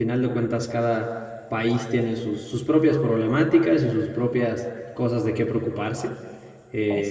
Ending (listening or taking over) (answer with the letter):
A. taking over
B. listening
B